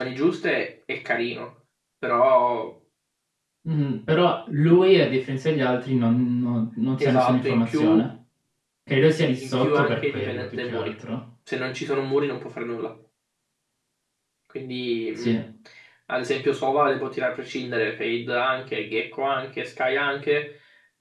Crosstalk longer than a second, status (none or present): present